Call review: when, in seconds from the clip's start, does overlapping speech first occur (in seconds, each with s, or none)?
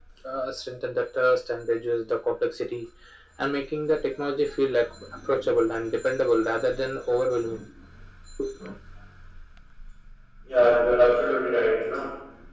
none